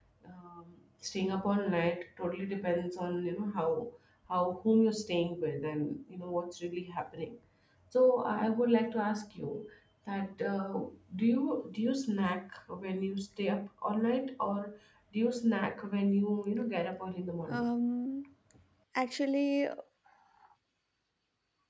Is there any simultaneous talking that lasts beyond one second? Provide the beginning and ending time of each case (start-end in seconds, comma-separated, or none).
none